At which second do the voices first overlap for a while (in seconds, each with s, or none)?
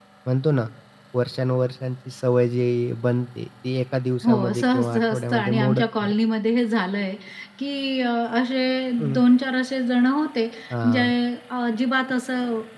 4.2 s